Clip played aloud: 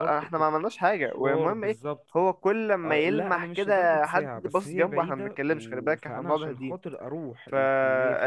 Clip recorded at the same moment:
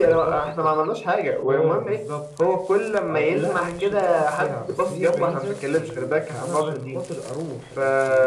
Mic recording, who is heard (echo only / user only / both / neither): echo only